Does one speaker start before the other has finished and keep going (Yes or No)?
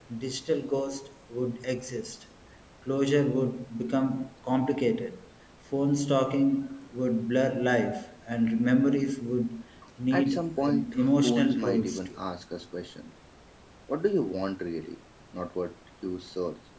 Yes